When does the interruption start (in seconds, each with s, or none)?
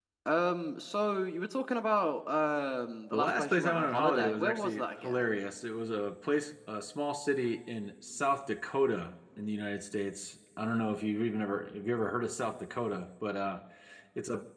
3.1 s